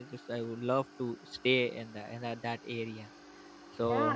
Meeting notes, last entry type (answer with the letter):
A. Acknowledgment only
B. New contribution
B